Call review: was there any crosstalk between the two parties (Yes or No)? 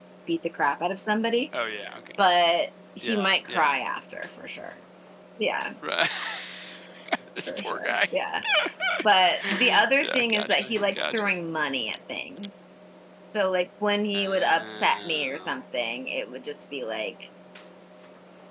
Yes